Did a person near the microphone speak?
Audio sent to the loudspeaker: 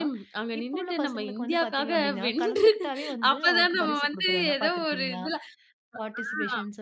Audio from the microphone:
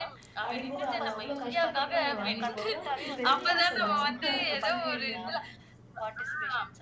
Yes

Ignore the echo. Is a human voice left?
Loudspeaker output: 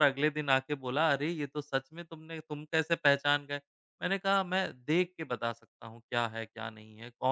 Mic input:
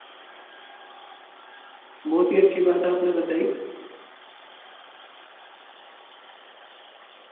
Yes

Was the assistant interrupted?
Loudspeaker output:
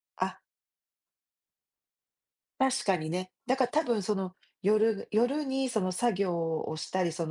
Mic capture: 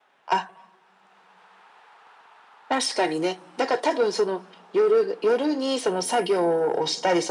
No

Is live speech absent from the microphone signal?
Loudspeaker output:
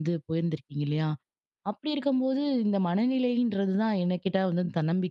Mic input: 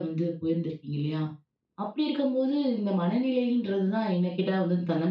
Yes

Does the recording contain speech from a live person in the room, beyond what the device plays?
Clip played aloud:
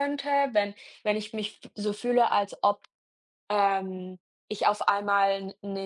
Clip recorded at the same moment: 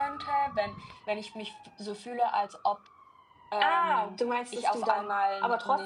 Yes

